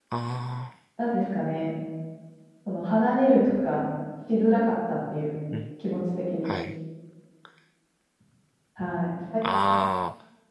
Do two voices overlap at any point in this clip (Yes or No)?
No